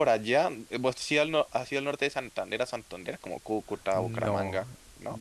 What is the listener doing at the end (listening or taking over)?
taking over